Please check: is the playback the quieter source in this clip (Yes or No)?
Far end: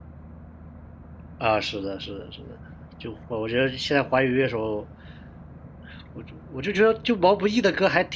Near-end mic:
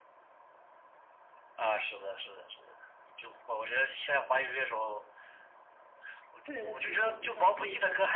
No